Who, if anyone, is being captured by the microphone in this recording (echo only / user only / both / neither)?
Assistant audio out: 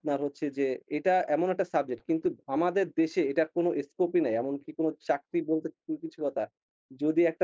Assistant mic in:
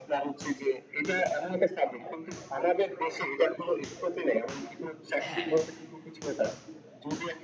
both